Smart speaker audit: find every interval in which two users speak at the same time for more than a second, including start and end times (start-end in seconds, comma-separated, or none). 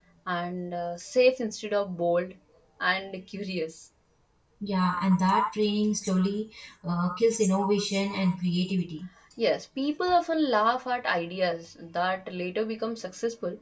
none